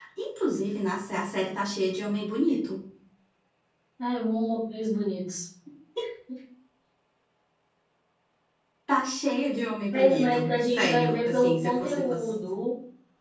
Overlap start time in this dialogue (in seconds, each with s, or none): 9.9 s